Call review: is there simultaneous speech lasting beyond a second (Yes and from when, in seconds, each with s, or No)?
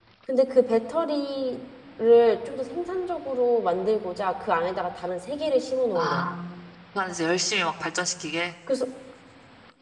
No